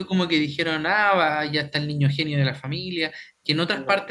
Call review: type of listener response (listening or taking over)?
listening